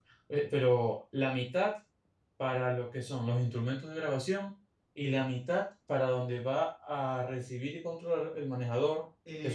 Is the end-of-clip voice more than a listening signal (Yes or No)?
Yes